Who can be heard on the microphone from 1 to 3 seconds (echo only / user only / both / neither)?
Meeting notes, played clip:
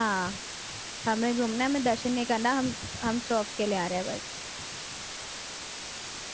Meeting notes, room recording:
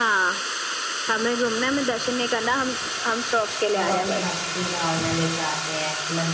echo only